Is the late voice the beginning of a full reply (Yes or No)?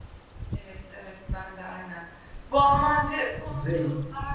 No